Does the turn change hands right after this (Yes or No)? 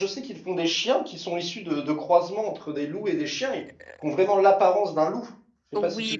Yes